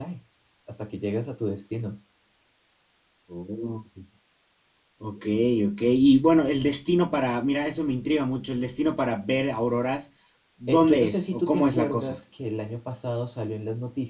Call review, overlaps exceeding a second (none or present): present